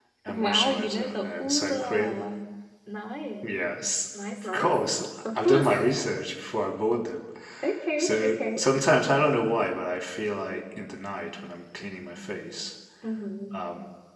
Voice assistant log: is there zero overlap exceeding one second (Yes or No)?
No